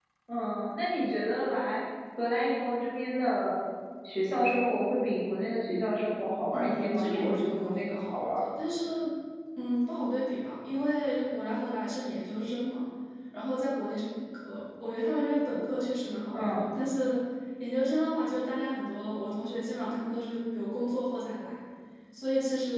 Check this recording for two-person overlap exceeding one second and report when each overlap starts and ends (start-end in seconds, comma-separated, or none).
6.5-8.4